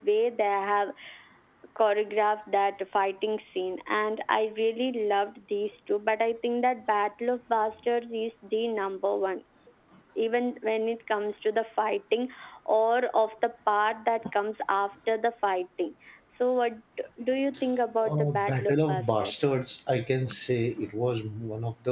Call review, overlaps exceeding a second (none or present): present